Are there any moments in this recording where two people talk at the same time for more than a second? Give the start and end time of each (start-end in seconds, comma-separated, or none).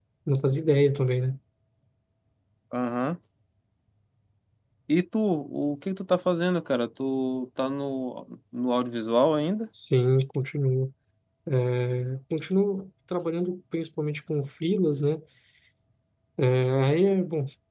none